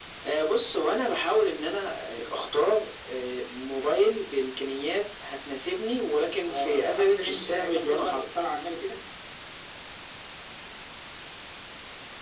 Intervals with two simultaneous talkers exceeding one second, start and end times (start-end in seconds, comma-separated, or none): 6.5-8.2